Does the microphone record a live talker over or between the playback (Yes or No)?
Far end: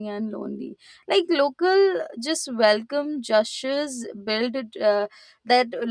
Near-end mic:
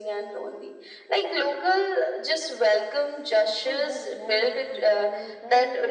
Yes